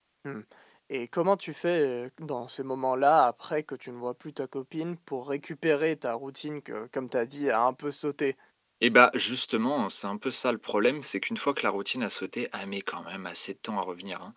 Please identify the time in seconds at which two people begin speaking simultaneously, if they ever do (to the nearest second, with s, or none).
none